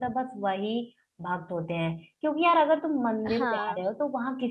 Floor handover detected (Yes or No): No